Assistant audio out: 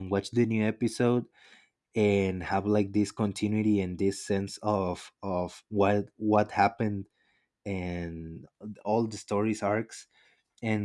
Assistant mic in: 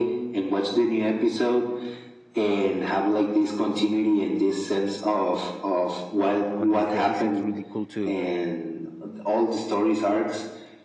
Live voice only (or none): on these days it's really cool to